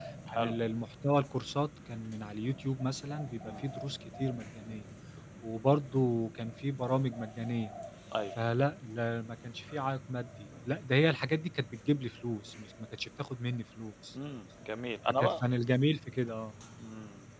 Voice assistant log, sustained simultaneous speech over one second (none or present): none